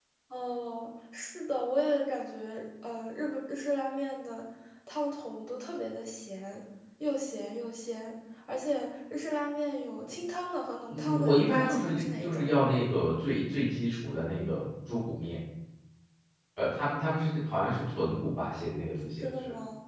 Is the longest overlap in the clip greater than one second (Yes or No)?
Yes